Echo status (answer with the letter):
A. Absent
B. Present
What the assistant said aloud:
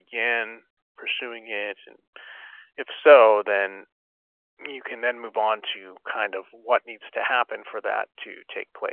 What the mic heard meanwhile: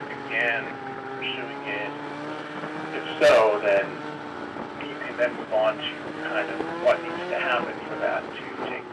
B